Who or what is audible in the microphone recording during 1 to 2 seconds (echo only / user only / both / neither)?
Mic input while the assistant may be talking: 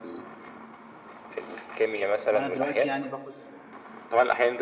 echo only